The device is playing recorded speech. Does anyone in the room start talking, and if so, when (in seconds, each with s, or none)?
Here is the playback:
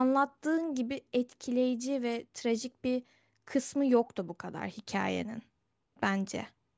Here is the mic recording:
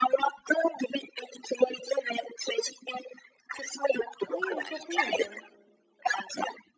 4.2 s